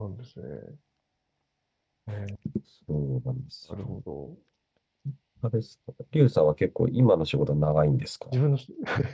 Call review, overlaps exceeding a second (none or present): none